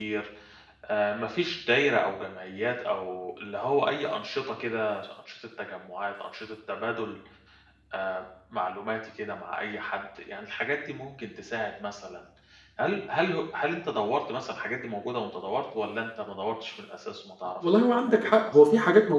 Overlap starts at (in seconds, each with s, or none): 17.4 s